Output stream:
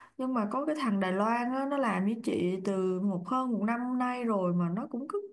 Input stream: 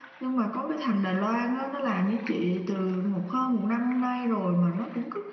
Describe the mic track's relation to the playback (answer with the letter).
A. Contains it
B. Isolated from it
A